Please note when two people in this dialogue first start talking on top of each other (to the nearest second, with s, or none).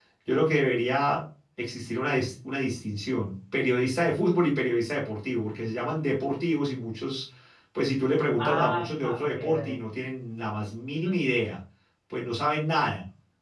8 s